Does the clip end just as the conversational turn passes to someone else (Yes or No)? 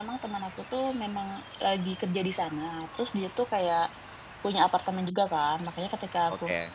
No